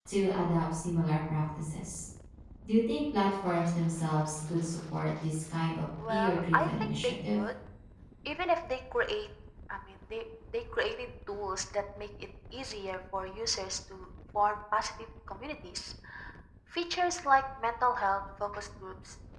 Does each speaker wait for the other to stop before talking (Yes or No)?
No